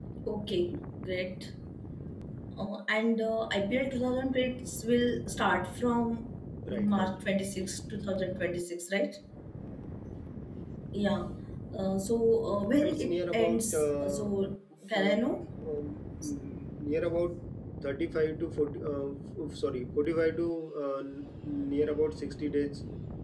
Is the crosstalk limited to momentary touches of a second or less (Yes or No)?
No